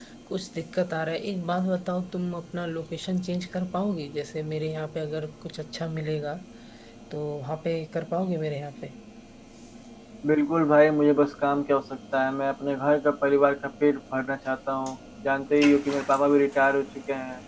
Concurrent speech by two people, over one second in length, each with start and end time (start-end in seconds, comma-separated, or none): none